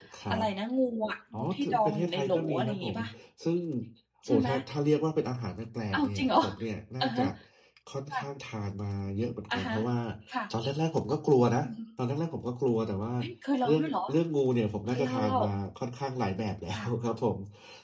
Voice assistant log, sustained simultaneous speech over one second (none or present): present